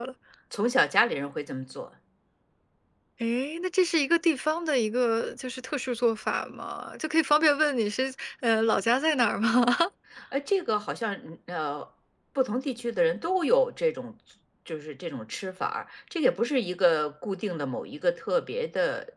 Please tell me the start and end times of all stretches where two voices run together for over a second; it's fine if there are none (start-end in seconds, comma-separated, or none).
none